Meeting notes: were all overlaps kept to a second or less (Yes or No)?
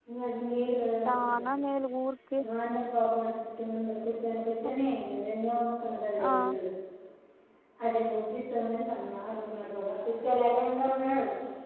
Yes